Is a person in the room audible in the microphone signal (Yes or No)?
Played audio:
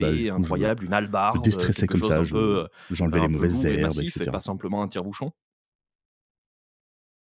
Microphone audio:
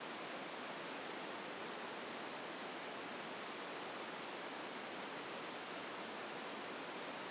No